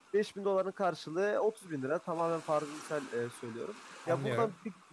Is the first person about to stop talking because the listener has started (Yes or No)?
No